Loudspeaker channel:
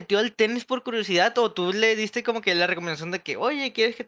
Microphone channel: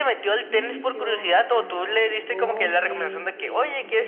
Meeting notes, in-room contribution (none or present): present